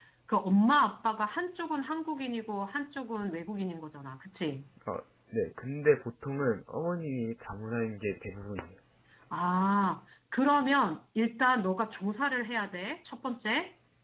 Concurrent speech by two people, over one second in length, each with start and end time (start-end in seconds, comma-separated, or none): none